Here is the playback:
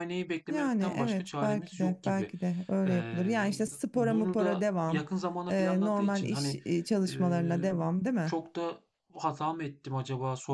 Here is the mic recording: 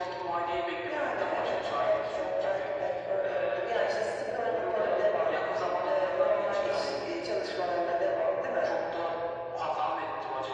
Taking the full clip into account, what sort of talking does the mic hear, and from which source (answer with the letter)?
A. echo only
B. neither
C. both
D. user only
A